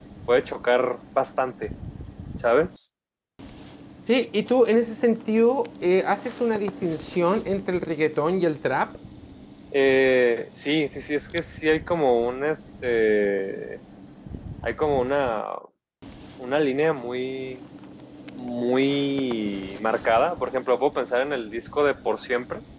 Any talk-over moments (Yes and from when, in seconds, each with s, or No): No